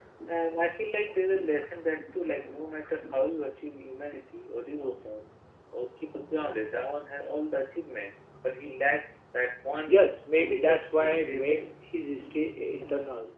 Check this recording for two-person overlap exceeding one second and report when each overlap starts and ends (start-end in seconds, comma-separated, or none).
10.4-11.7